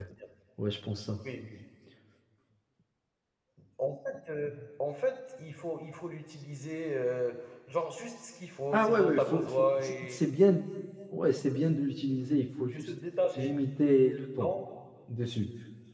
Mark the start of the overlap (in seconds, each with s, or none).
8.7 s